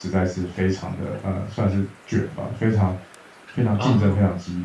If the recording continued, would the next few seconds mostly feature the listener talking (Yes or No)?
No